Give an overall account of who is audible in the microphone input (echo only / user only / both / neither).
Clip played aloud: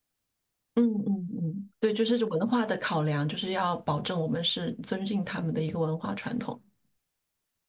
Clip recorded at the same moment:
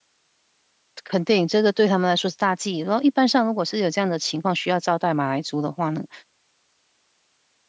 user only